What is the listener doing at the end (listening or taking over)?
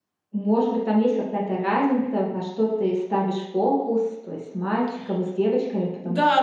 taking over